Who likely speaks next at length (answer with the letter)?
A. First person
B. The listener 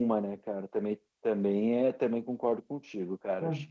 B